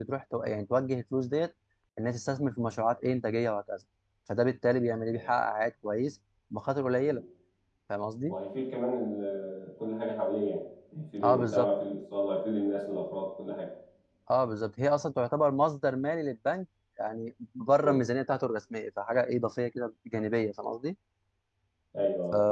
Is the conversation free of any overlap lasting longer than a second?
Yes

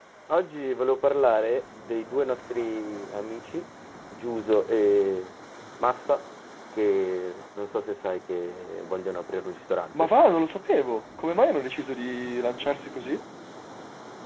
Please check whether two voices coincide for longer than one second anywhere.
No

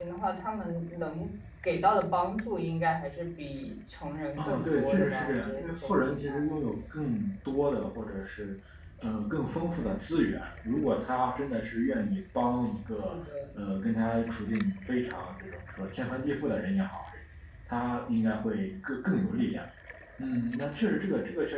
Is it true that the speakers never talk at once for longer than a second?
No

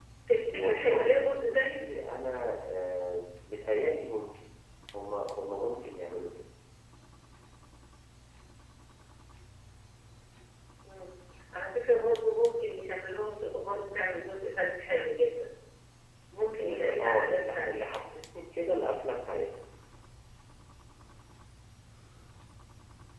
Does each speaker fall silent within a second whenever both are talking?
No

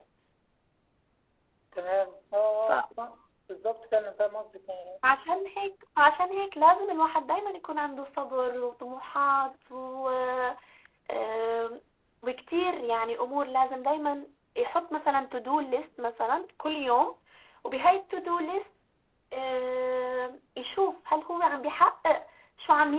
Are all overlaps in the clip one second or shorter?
Yes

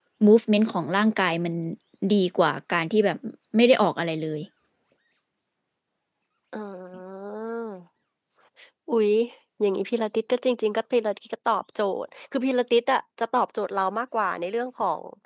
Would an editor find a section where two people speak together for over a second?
No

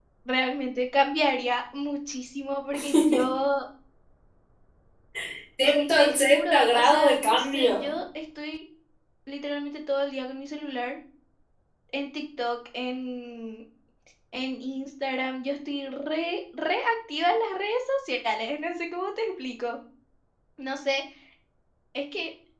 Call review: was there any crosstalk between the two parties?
Yes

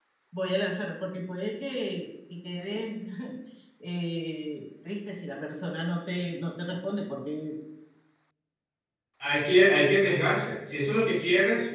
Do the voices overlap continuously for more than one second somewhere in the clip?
No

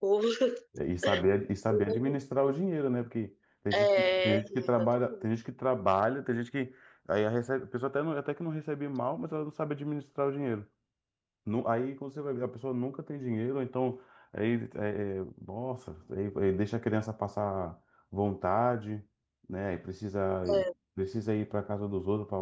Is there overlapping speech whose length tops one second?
Yes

